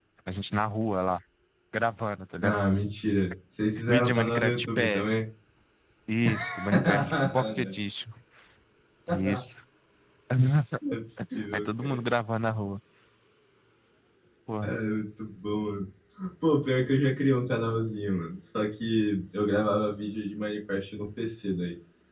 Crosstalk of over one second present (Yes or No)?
Yes